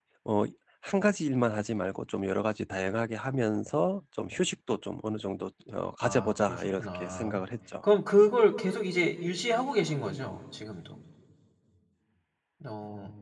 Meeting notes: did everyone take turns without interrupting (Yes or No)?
No